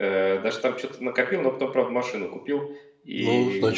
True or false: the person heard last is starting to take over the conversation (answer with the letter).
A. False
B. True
B